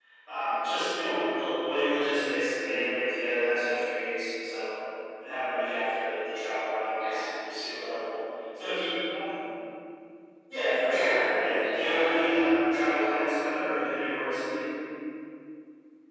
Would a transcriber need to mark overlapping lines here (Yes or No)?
Yes